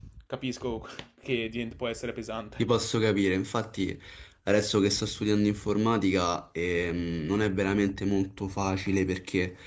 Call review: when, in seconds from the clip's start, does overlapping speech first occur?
none

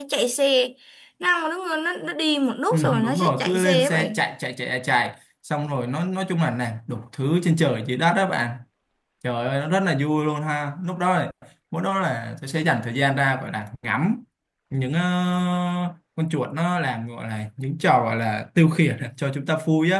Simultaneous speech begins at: 2.7 s

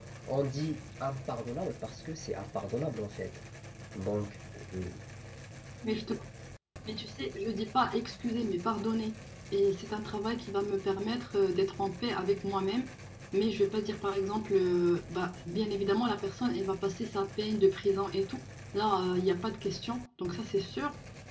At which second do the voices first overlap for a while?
none

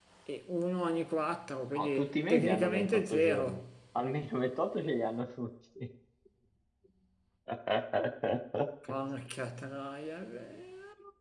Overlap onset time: 1.8 s

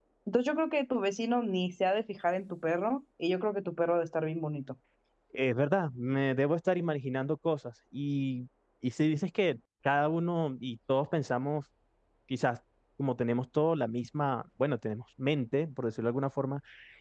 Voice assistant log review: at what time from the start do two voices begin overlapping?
none

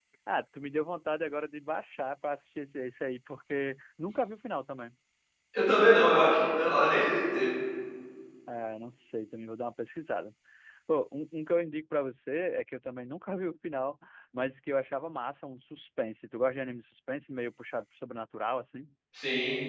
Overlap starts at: none

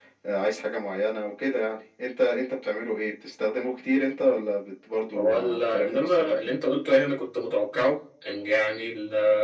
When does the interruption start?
5.2 s

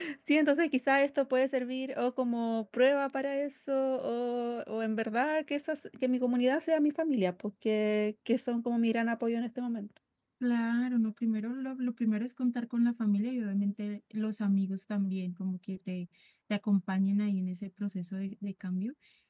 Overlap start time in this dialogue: none

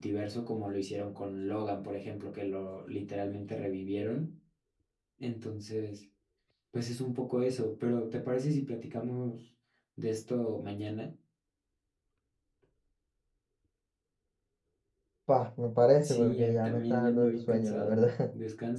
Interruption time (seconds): 16.0 s

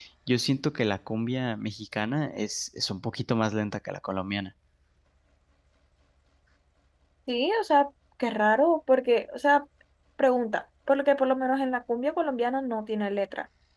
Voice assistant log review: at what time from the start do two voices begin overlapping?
none

